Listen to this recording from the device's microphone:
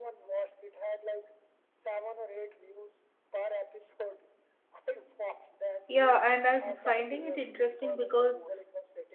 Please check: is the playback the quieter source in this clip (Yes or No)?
Yes